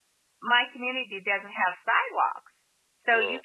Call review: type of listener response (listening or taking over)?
listening